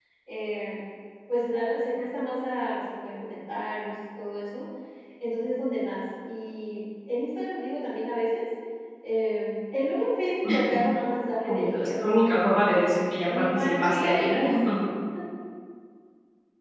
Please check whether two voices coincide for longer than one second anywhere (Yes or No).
Yes